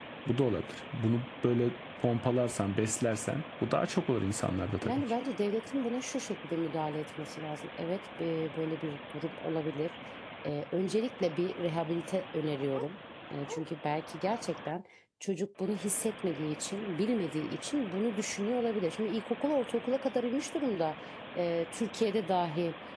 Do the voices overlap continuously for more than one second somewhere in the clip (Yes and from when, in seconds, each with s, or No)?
No